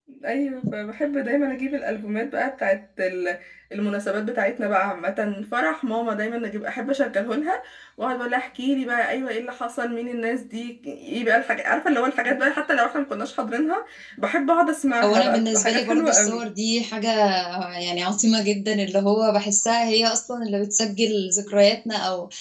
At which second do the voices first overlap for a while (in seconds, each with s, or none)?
15.0 s